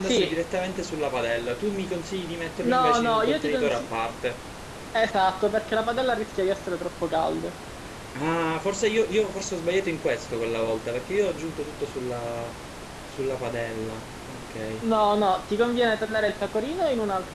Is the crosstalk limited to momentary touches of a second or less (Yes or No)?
No